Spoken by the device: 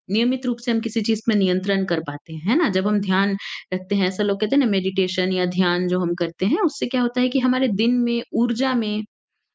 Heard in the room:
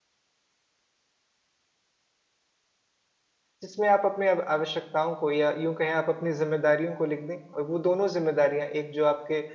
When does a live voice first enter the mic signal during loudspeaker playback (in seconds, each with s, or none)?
3.6 s